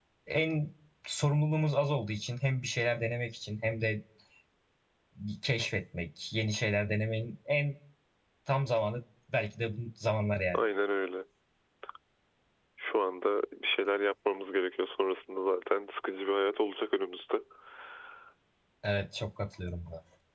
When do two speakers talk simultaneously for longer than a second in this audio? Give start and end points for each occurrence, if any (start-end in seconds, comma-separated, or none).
none